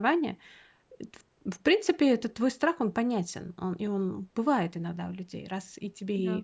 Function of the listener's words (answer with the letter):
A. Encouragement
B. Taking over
A